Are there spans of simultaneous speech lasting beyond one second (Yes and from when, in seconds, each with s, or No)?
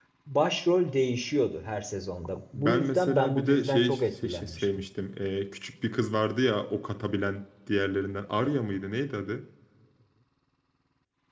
Yes, from 2.5 s